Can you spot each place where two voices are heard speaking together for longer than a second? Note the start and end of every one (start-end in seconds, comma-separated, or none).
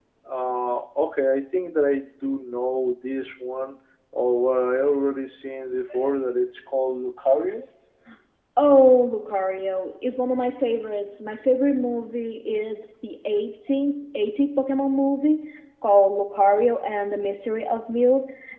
none